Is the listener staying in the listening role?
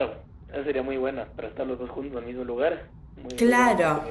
No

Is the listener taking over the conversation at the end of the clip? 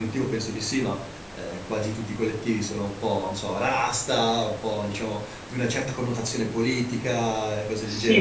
Yes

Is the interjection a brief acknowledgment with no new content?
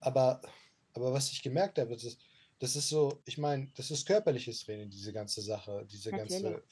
Yes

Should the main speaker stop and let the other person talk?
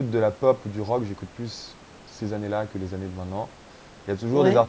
No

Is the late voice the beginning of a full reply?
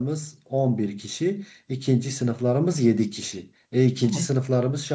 No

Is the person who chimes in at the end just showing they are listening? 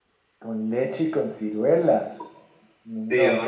No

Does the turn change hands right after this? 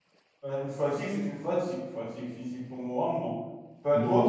Yes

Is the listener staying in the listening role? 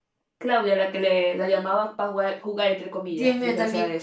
No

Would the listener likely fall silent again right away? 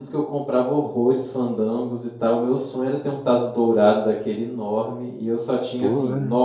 Yes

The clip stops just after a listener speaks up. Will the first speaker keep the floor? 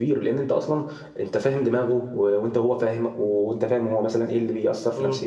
Yes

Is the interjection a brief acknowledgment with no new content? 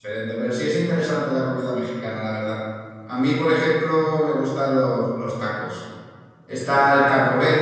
Yes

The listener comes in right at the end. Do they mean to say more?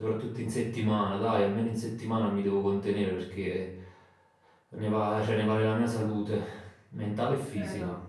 Yes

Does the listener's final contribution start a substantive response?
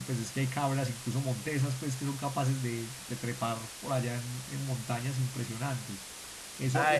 Yes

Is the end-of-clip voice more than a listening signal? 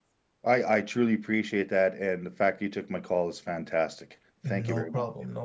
Yes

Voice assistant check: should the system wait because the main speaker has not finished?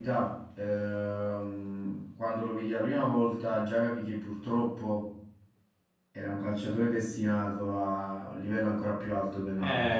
No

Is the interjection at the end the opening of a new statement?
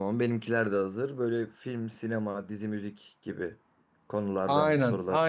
Yes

